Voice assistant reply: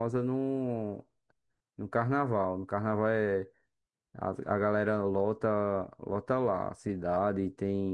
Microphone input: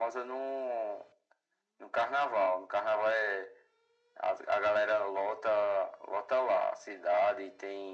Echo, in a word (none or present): present